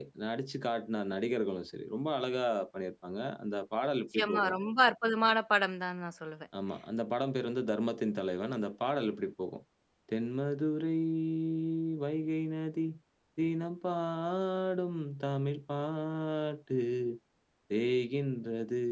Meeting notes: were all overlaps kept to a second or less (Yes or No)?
Yes